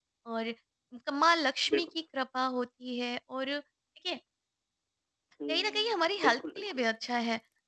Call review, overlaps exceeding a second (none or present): present